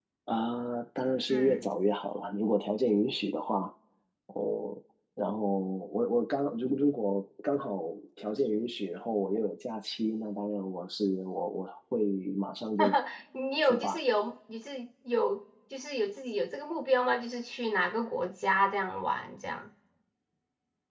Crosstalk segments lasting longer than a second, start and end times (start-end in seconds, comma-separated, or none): none